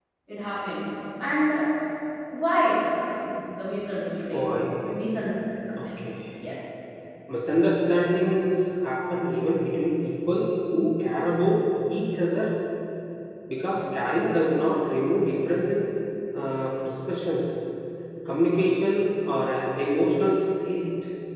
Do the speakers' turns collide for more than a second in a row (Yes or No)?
No